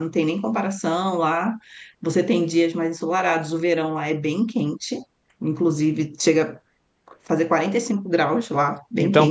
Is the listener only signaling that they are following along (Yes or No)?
No